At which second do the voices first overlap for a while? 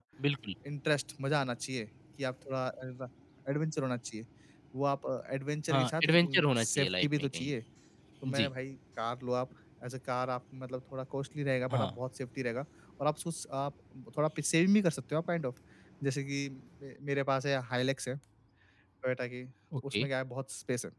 5.7 s

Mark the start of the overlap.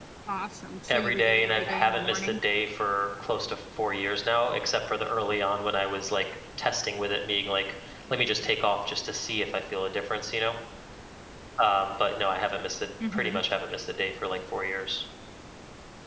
0.9 s

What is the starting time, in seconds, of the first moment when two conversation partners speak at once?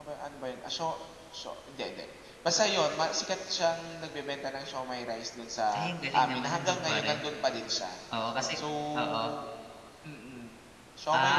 5.8 s

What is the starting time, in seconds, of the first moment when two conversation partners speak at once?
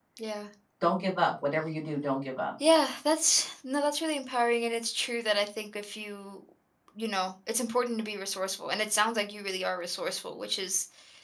none

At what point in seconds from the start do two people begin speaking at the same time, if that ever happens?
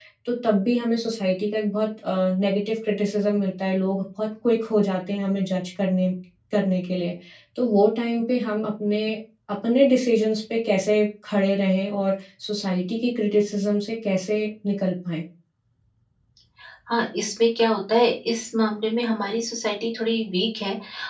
none

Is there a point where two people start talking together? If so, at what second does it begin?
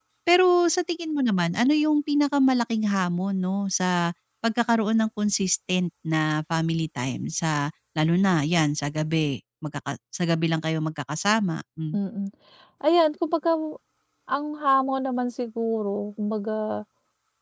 none

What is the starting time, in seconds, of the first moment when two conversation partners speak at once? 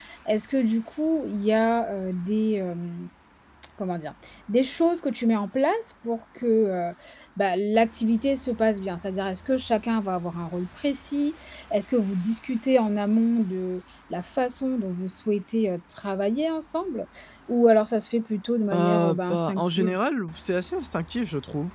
18.7 s

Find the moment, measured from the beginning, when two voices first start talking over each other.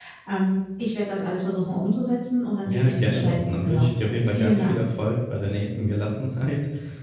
2.6 s

